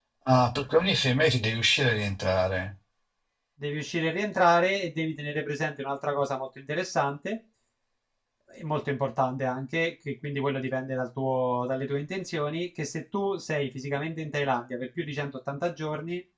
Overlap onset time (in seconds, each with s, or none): none